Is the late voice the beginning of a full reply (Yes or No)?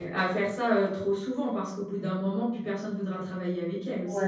Yes